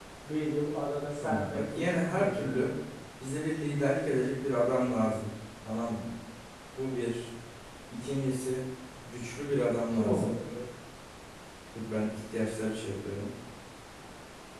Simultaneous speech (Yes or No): Yes